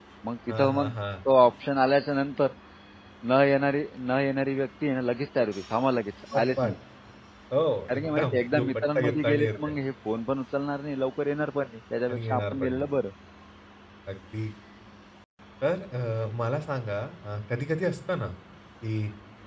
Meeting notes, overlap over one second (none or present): present